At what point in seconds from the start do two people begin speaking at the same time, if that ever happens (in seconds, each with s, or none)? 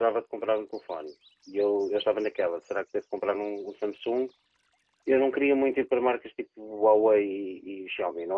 none